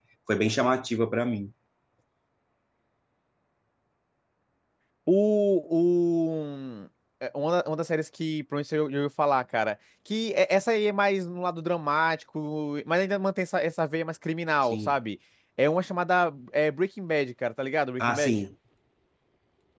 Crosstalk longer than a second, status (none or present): none